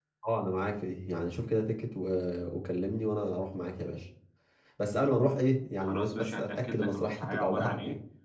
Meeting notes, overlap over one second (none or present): present